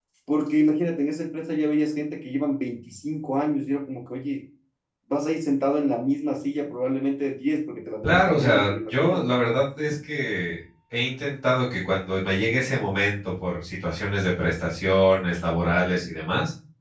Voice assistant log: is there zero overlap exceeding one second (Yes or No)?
No